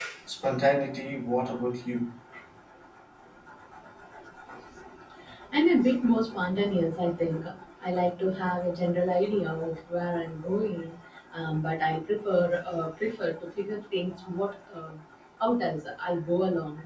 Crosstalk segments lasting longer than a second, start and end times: none

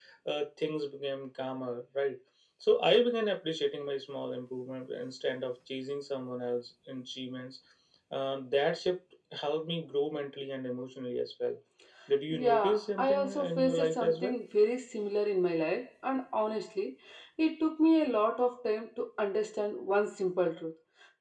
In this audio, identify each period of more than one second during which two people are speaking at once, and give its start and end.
12.3-14.4

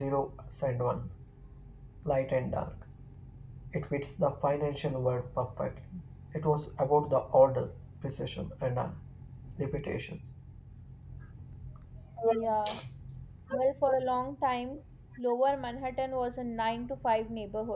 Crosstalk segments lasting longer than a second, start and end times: none

